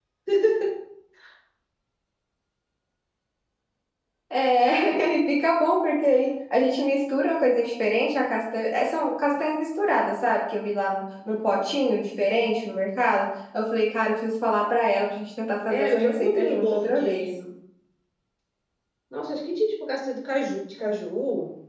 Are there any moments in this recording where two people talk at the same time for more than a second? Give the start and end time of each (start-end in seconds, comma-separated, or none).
15.7-17.3